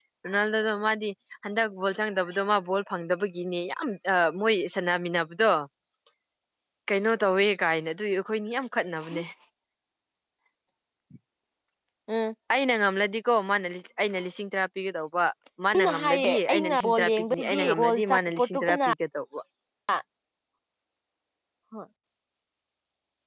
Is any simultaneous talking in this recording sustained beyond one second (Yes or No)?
Yes